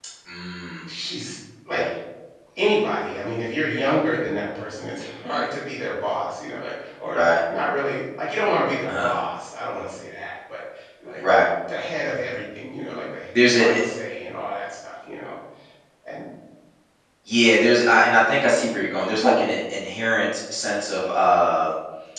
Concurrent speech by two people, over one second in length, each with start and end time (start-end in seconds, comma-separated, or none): none